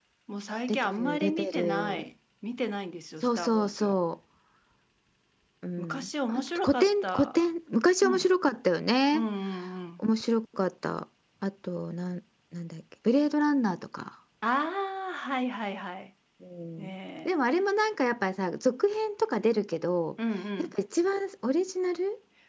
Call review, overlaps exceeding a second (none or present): present